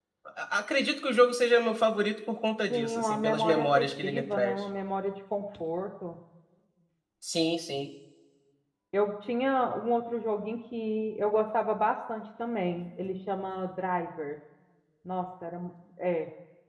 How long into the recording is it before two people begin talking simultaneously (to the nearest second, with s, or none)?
3 s